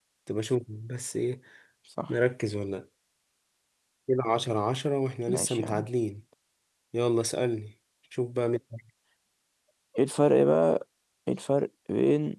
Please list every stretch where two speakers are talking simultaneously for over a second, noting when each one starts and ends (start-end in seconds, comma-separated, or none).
none